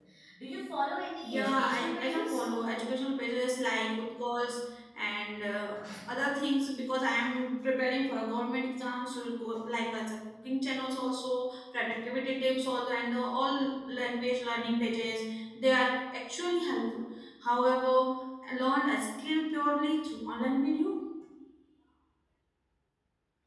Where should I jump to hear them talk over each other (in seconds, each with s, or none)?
1.2 s